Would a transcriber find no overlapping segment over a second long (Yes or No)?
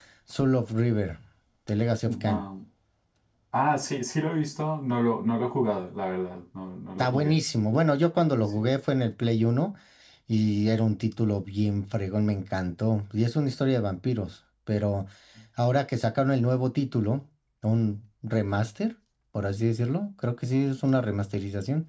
Yes